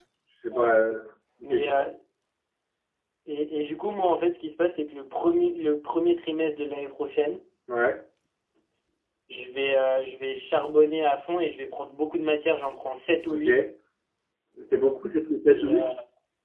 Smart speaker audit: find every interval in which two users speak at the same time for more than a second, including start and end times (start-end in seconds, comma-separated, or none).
none